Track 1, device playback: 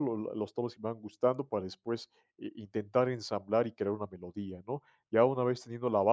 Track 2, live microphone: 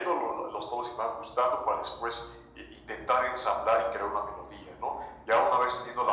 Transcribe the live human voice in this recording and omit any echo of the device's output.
none

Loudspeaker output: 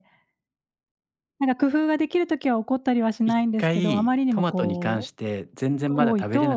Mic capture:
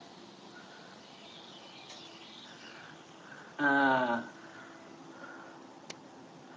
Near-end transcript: あ

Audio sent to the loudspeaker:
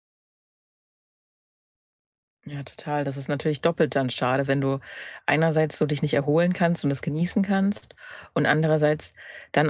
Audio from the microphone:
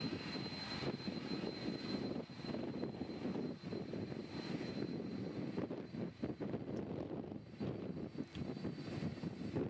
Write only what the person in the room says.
none

